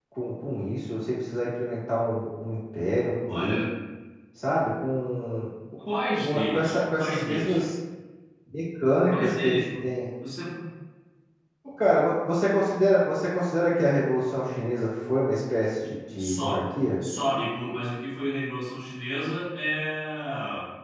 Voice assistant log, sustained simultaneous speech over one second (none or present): present